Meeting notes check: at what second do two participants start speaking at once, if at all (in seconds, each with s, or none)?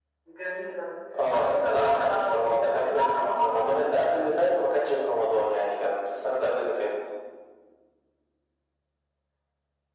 1.3 s